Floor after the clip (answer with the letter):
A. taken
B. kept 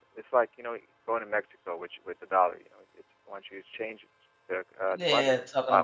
A